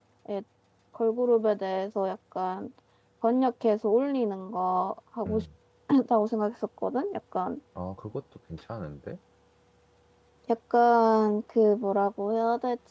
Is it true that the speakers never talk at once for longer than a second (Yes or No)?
Yes